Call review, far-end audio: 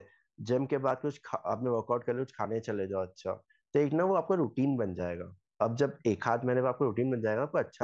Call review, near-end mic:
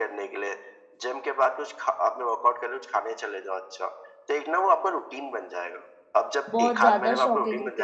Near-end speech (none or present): present